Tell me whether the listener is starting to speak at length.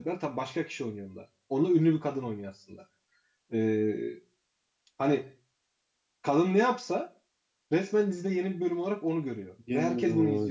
No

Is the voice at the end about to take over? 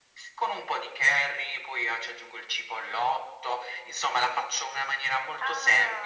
Yes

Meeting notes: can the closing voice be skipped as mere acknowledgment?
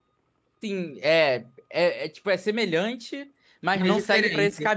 Yes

